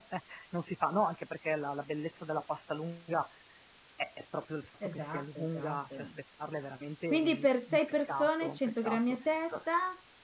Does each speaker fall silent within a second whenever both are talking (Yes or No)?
No